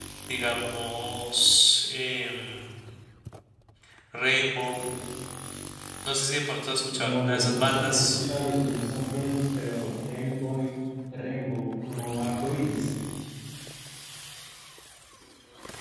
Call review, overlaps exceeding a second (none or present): present